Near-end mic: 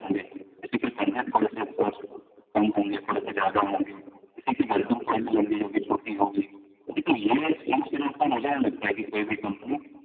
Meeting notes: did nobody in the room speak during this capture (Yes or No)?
Yes